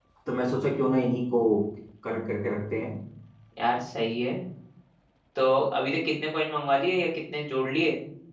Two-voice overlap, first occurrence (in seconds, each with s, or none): none